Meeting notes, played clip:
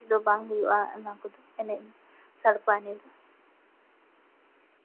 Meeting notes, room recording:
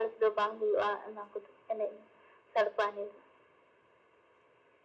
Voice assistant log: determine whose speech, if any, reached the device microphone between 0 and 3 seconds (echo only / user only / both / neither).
echo only